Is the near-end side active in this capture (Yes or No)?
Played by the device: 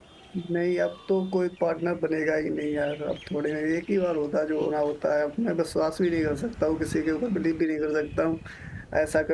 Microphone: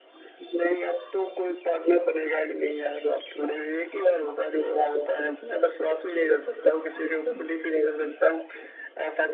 No